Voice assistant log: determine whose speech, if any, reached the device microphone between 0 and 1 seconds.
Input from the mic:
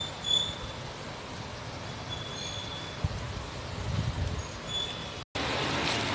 neither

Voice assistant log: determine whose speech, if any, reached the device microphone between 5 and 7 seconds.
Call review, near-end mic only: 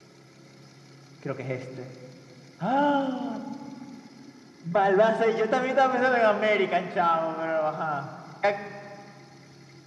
echo only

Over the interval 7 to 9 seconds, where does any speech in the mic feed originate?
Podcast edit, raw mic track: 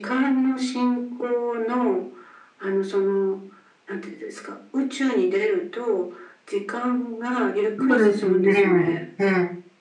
both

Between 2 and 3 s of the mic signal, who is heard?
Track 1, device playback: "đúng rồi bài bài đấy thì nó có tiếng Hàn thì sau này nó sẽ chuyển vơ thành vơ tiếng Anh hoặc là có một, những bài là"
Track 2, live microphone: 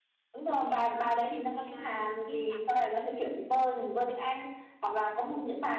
both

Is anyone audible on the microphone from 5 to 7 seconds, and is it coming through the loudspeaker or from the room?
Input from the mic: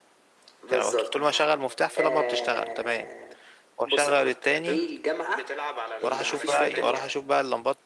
both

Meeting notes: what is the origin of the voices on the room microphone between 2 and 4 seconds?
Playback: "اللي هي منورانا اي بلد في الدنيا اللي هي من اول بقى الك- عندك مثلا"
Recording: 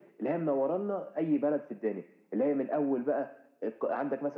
echo only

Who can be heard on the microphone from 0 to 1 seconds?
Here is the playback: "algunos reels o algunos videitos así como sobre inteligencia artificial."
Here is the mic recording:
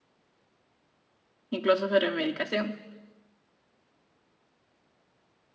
neither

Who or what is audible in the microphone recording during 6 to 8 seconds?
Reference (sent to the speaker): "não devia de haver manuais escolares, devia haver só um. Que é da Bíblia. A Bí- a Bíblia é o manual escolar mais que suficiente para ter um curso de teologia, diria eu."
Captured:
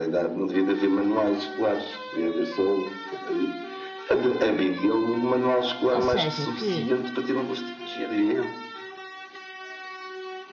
both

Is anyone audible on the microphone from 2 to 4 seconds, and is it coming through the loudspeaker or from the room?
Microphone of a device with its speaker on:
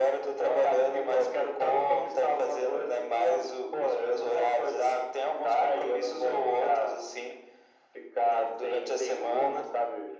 echo only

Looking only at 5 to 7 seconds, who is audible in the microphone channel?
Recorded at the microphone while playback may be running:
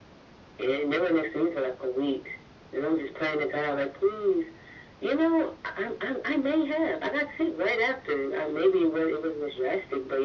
echo only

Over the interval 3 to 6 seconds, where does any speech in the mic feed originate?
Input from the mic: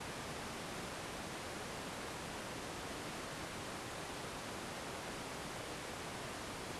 neither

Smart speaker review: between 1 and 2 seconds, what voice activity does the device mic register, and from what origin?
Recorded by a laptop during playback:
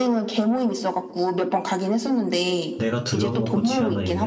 echo only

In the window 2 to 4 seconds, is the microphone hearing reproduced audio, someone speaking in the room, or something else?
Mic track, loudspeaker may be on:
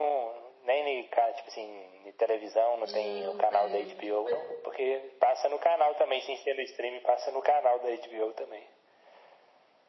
both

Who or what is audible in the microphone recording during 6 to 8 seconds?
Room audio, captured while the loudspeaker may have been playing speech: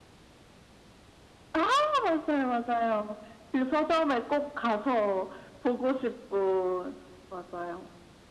echo only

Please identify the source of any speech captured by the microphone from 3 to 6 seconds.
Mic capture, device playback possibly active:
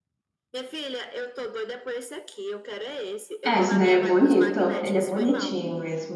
both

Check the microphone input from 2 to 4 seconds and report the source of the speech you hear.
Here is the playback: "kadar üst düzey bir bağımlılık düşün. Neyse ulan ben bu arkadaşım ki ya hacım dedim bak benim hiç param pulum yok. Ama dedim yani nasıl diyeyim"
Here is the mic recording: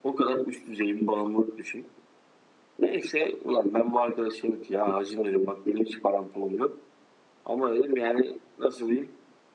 echo only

